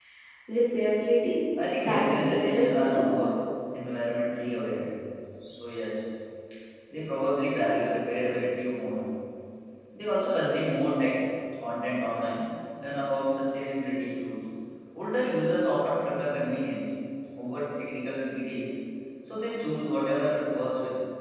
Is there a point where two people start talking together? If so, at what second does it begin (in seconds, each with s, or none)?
1.7 s